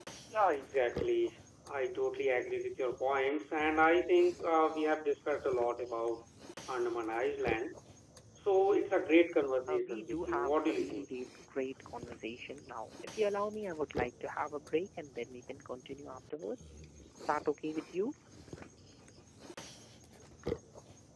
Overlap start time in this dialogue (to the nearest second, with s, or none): 10 s